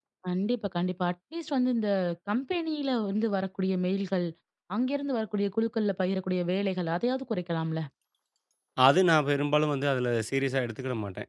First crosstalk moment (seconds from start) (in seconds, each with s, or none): none